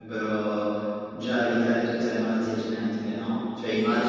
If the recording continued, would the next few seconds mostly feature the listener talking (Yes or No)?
No